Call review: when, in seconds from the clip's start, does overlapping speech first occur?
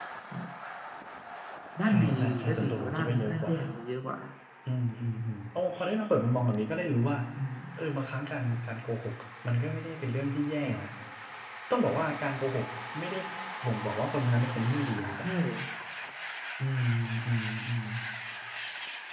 1.8 s

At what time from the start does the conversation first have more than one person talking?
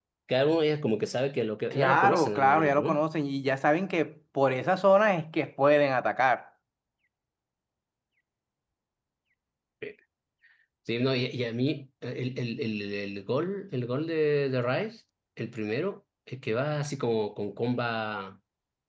1.7 s

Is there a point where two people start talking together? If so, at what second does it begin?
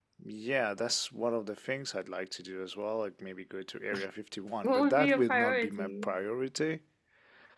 4.6 s

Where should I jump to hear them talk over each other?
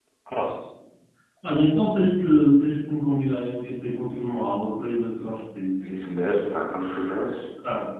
none

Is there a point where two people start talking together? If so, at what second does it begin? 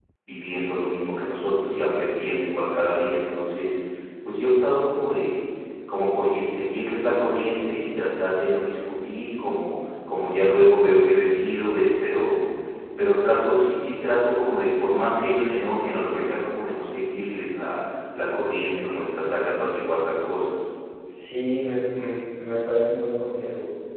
none

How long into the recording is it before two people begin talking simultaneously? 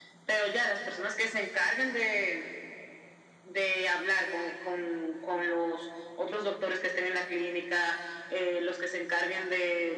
none

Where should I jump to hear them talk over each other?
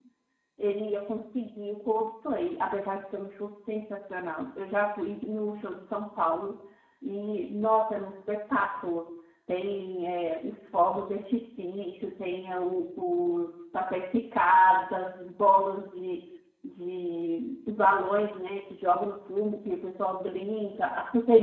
none

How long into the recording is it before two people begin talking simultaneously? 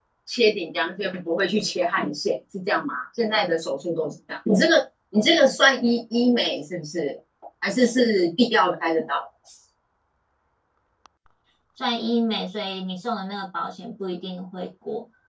none

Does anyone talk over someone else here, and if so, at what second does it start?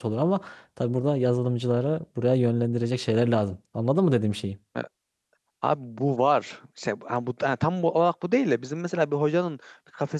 none

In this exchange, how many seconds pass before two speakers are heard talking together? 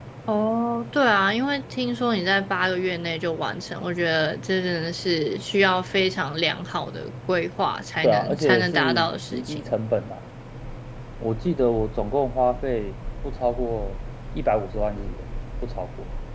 8.0 s

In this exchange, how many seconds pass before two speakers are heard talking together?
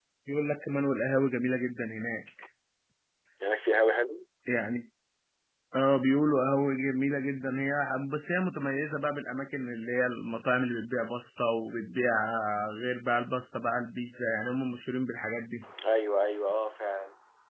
none

